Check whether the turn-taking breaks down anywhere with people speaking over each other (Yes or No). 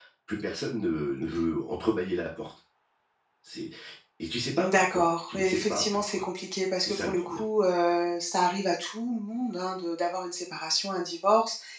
Yes